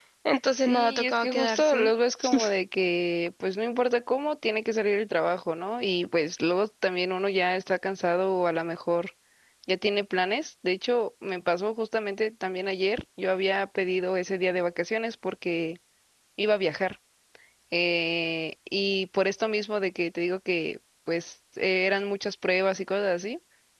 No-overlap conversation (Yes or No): No